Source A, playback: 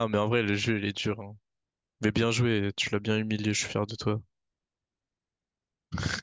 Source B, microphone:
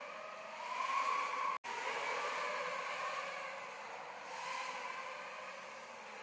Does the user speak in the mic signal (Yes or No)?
No